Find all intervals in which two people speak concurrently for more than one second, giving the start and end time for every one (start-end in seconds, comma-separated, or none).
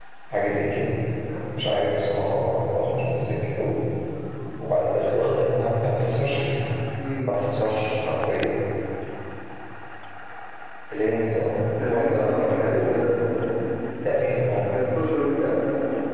11.9-13.2